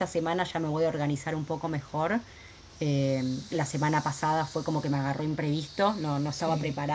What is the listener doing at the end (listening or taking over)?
listening